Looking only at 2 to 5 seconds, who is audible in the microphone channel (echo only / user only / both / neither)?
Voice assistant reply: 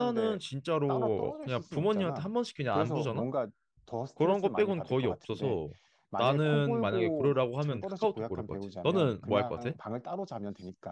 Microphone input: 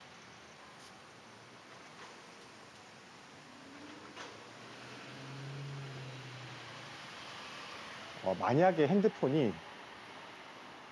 neither